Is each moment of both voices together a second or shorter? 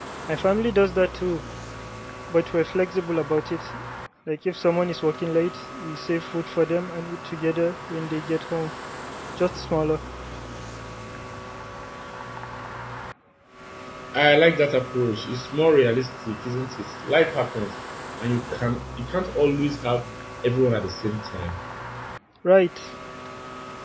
Yes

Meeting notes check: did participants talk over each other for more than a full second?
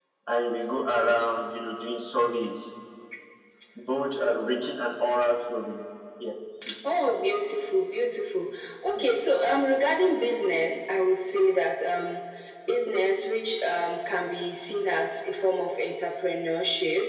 No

